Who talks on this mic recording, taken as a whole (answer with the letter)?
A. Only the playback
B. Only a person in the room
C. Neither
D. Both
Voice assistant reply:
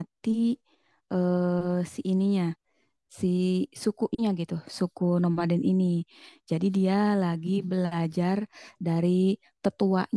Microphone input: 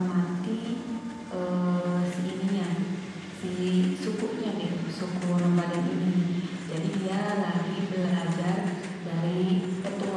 A